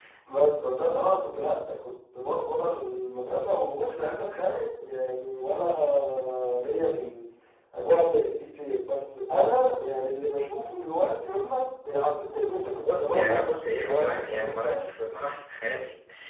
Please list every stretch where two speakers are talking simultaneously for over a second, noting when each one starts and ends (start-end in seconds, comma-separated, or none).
12.9-14.9